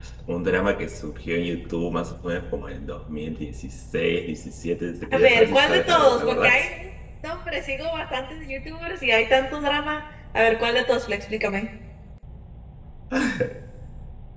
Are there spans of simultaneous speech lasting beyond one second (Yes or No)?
Yes